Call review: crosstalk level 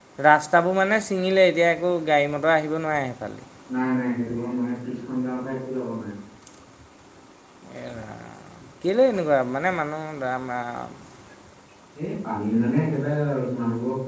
none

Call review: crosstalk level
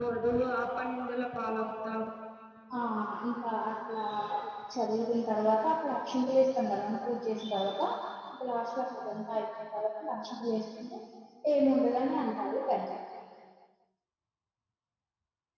none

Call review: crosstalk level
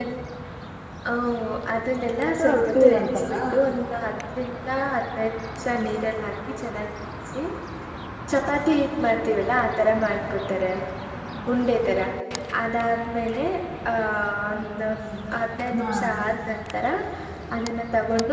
present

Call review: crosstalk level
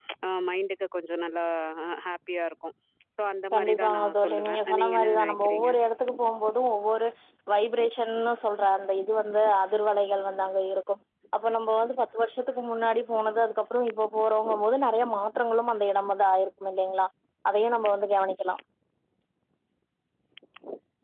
present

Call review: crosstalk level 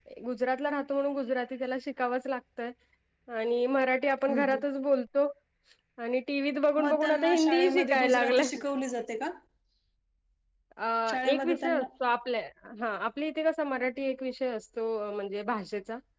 present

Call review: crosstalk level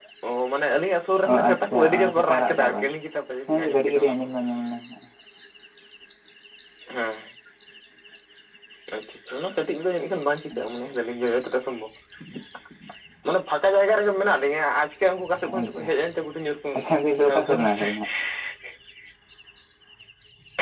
present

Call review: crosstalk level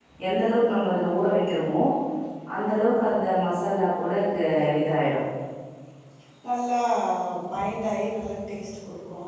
none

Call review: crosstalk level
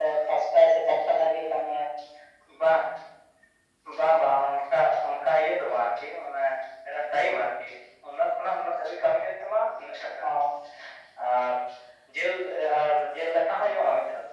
none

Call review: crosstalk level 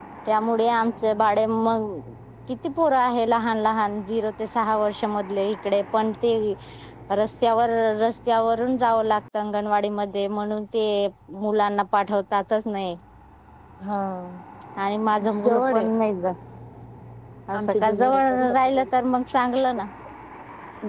present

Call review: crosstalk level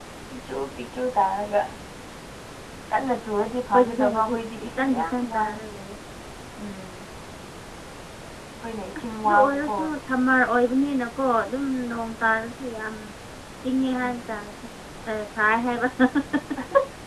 present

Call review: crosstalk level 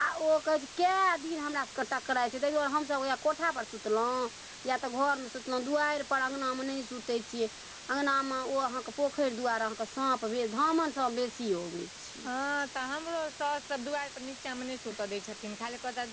none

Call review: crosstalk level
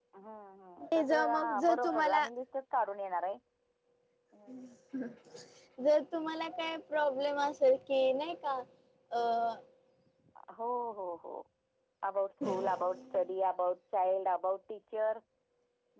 present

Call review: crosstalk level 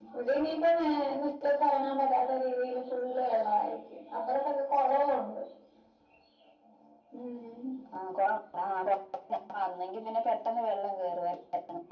none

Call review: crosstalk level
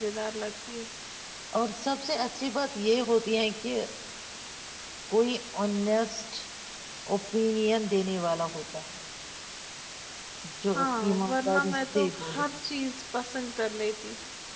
present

